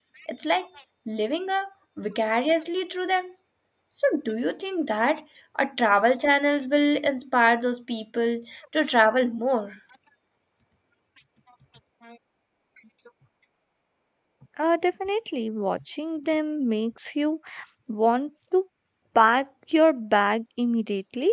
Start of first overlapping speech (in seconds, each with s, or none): none